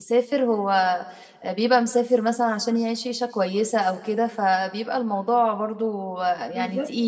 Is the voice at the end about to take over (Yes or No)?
Yes